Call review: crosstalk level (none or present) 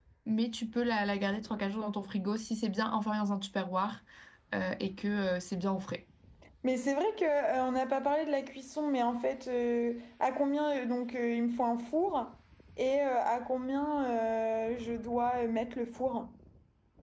none